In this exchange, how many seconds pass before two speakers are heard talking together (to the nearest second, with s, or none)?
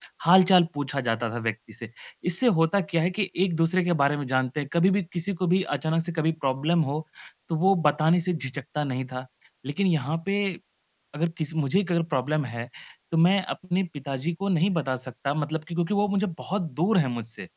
none